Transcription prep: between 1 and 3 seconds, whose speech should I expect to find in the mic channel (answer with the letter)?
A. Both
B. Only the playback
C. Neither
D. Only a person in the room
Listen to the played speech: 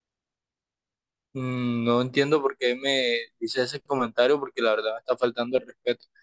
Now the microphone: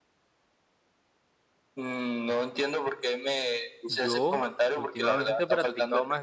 B